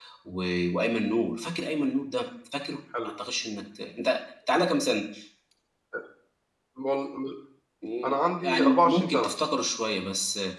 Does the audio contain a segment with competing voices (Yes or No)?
Yes